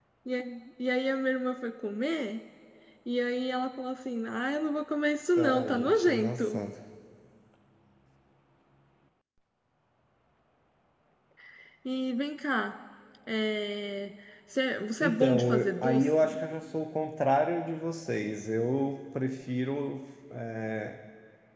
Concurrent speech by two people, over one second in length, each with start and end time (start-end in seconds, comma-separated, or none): 5.4-6.6, 15.0-16.4